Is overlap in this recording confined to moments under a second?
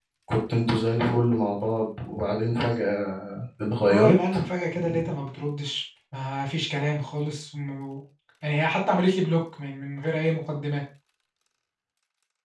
Yes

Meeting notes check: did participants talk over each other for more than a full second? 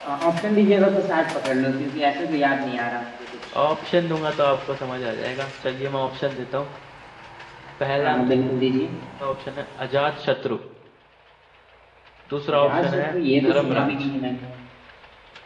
Yes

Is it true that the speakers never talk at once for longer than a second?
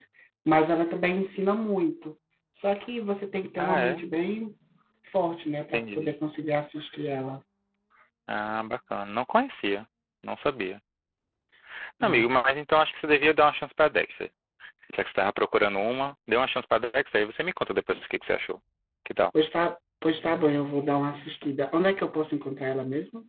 Yes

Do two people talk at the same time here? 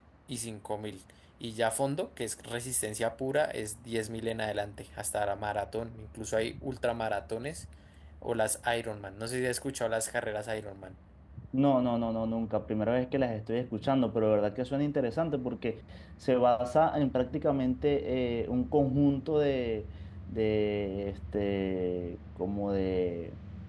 No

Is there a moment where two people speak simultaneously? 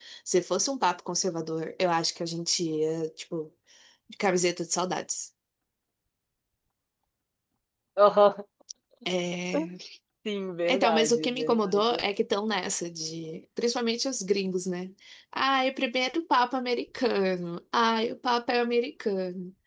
Yes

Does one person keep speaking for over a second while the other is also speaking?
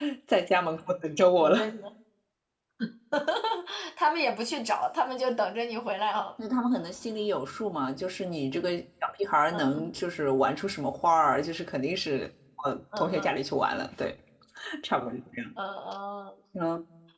No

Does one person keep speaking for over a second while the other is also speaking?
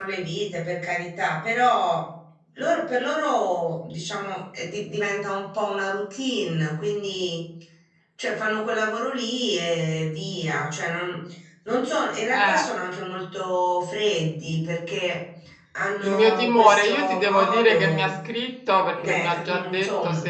Yes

